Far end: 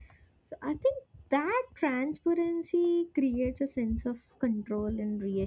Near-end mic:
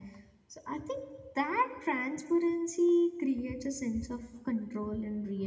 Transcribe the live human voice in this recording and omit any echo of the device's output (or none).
none